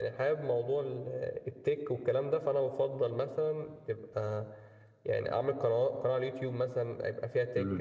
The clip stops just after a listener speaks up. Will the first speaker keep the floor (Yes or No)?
Yes